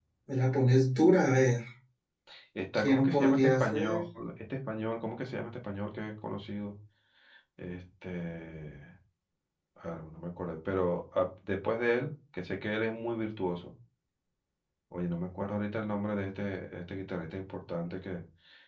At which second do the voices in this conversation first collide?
2.7 s

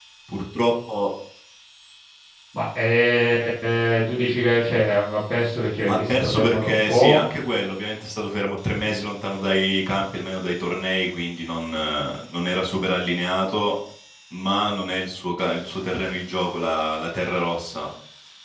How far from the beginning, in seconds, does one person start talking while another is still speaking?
5.8 s

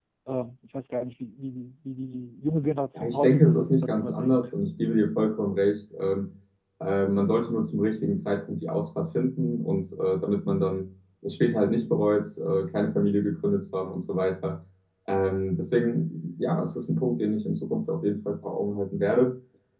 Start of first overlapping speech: 3.0 s

